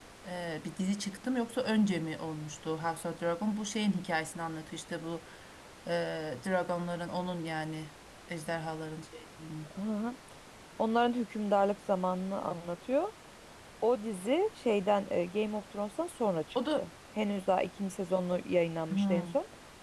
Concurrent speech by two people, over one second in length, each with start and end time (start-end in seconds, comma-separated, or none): none